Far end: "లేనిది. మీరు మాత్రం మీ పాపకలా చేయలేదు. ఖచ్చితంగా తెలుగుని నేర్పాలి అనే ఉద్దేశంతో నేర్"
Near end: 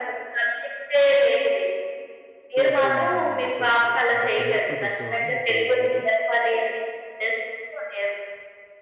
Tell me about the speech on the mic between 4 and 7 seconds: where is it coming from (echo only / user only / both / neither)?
both